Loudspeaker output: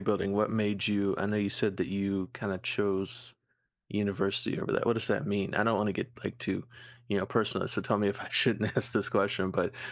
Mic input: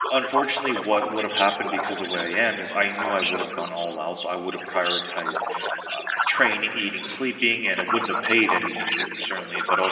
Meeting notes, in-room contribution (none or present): present